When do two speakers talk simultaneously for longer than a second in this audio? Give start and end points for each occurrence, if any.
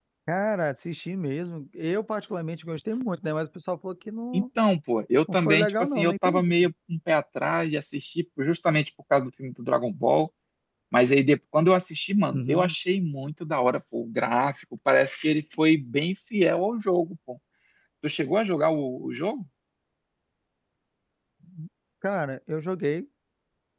5.3-6.7

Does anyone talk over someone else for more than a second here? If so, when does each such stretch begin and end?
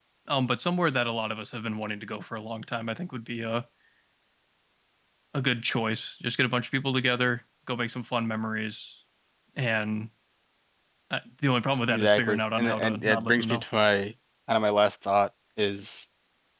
11.9-13.6

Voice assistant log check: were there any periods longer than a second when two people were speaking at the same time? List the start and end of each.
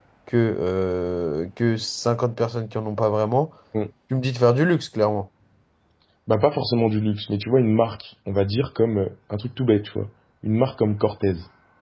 none

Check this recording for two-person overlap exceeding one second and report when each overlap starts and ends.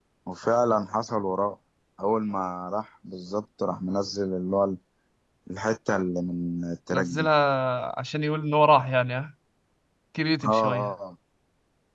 none

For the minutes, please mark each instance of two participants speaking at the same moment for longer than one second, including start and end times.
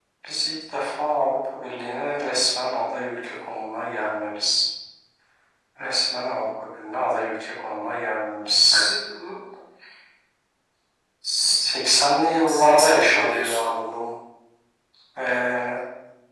12.5-13.7

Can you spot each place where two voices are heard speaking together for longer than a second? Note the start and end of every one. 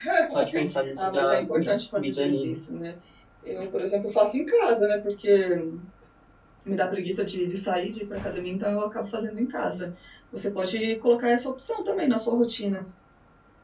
0.9-2.6

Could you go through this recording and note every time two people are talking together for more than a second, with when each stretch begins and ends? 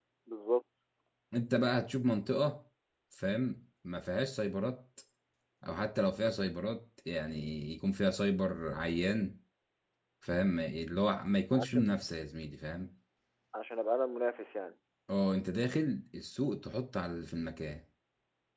none

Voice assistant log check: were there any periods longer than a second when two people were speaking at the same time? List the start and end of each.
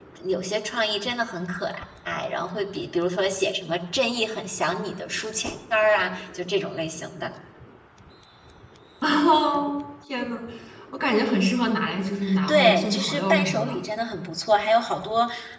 12.5-13.8

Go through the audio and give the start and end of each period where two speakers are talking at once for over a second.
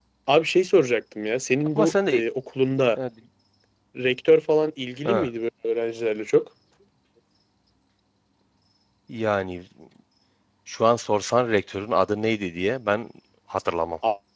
none

